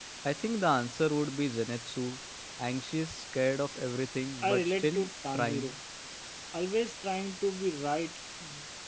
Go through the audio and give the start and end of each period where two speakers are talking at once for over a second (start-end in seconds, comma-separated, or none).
4.4-5.7